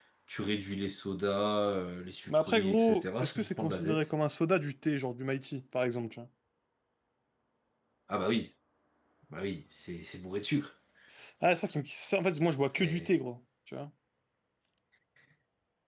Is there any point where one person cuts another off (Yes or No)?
Yes